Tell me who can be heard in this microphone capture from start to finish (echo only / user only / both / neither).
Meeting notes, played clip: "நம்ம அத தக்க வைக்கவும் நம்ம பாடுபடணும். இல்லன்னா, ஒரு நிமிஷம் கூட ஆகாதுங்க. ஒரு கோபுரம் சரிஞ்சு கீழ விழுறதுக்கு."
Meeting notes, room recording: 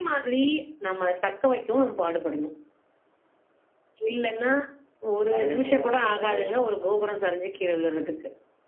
both